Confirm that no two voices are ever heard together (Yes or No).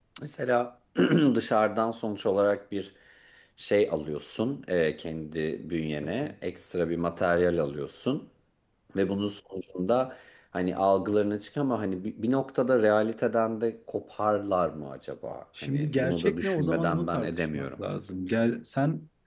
No